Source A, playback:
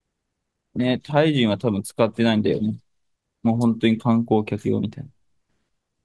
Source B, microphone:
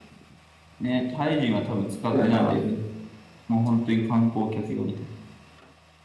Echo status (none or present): present